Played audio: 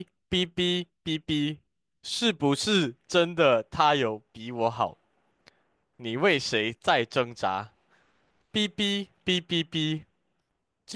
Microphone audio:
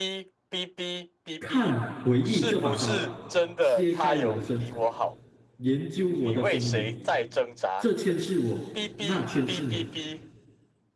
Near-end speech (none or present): present